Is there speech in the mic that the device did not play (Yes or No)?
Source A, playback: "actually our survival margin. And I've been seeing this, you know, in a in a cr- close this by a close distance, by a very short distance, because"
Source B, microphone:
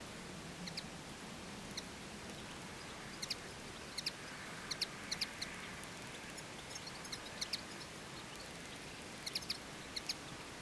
No